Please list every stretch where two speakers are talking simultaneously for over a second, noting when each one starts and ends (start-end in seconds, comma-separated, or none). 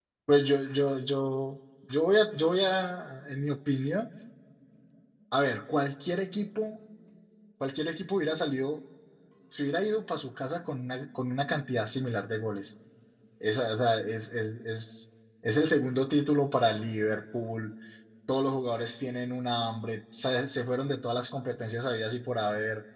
none